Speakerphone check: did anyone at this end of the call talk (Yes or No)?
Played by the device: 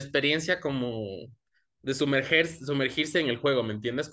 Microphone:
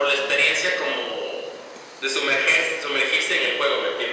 No